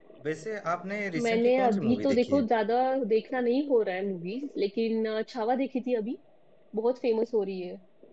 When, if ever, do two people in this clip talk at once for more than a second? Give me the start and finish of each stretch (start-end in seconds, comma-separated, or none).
1.2-2.5